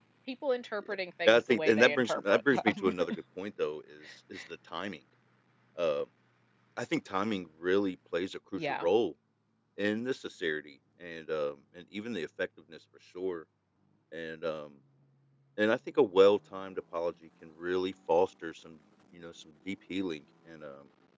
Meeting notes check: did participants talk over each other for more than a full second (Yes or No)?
Yes